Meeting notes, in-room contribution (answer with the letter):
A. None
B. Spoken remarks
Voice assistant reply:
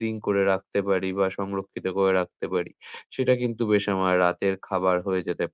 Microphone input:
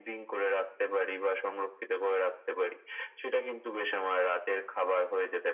A